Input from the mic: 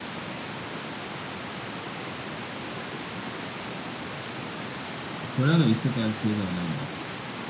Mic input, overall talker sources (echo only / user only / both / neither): user only